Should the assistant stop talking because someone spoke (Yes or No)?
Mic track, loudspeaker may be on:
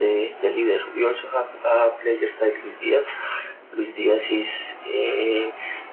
No